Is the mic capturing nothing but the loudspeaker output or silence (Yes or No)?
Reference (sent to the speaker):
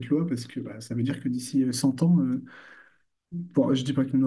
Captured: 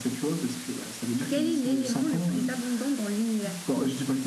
No